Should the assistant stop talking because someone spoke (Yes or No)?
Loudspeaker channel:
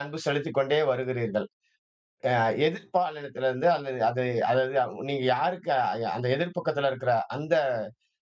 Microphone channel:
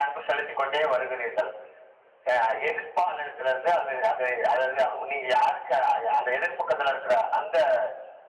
No